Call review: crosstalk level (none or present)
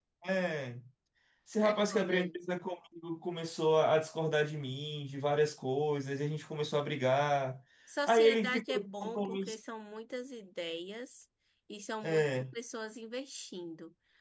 present